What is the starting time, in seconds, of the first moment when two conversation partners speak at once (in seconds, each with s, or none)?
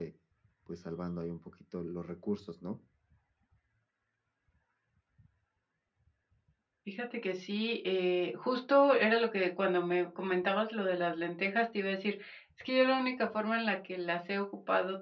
none